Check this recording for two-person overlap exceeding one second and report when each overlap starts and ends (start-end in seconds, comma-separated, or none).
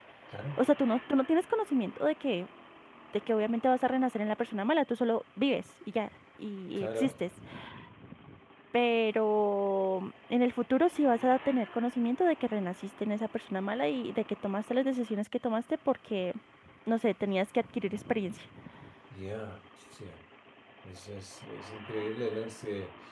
none